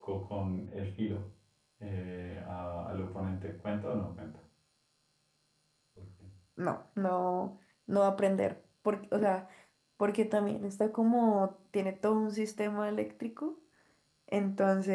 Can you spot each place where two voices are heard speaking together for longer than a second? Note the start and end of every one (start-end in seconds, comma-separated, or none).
none